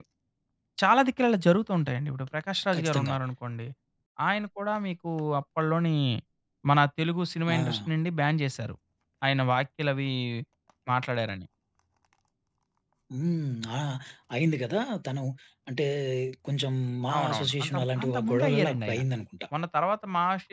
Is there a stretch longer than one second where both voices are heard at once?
Yes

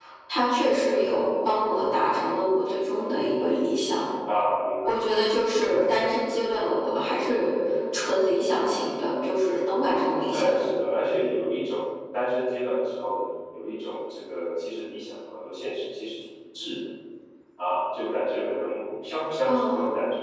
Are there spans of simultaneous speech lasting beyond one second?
No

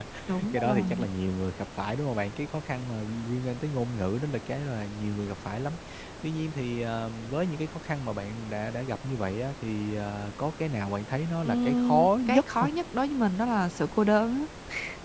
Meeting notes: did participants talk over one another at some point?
Yes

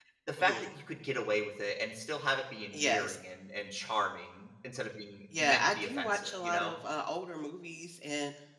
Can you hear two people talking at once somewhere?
Yes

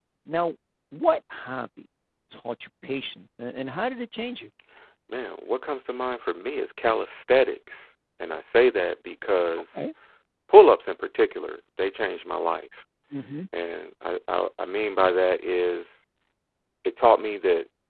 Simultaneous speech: No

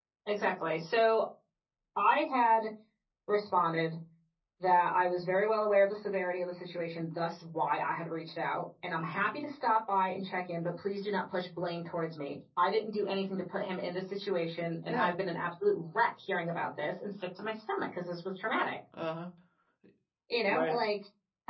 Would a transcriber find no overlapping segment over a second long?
Yes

